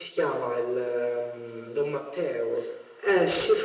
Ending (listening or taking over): taking over